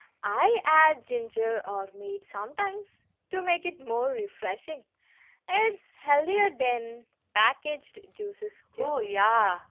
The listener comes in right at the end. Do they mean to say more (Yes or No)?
Yes